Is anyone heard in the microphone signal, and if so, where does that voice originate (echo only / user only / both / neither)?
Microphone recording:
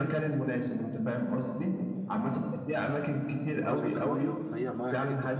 both